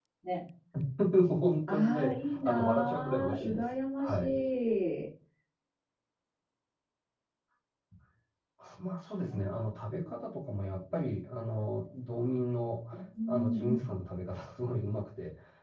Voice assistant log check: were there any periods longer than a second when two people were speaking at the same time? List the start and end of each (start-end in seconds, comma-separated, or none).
1.7-4.1